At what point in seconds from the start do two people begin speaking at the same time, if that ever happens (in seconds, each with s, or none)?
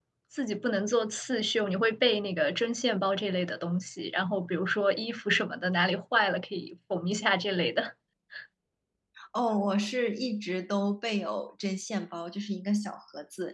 none